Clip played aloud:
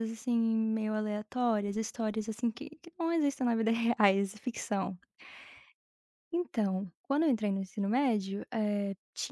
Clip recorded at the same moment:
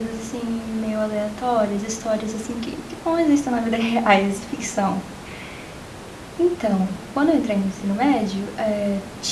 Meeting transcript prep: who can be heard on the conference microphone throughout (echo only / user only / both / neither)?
echo only